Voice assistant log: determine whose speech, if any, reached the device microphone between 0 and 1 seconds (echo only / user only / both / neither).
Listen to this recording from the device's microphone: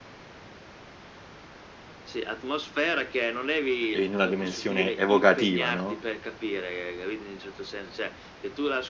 neither